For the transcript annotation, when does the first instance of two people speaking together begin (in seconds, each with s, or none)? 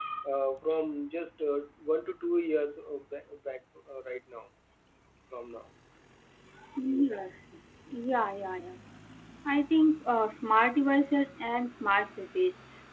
none